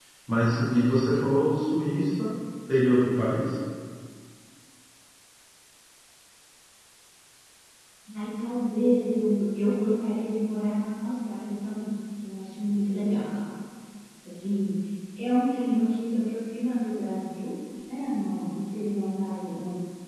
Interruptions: none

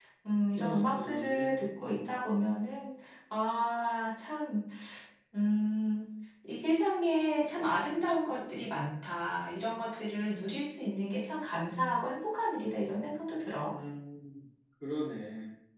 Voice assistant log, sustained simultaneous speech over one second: present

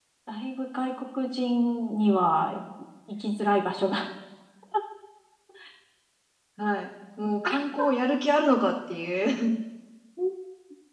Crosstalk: none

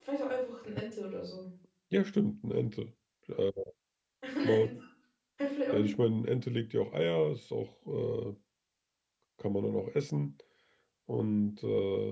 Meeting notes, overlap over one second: none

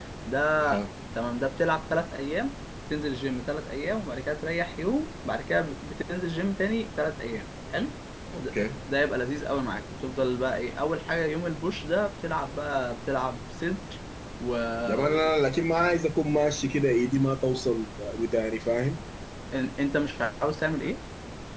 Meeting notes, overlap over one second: none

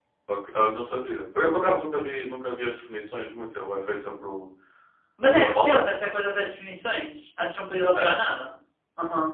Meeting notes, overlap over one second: none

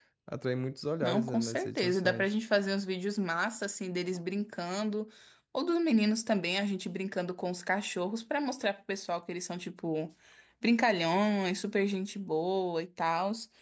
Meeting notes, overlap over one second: present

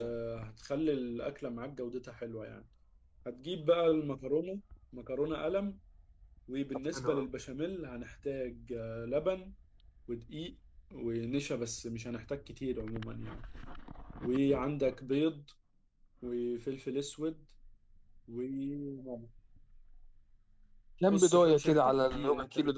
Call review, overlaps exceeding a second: present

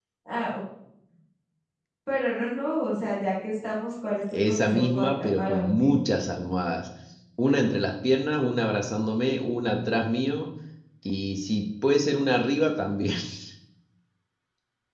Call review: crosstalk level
present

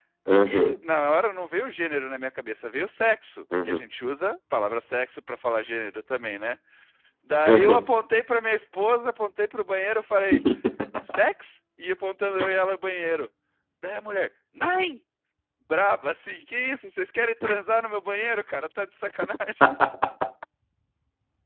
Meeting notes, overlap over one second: none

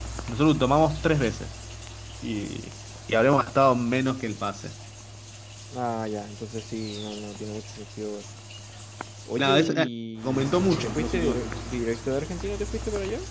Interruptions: present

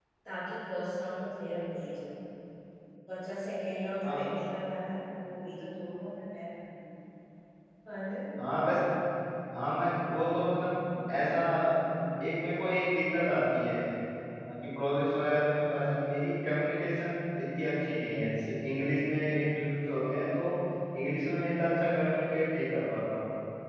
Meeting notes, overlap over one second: none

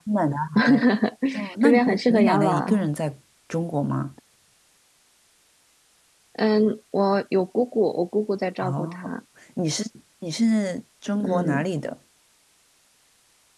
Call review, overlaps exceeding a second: present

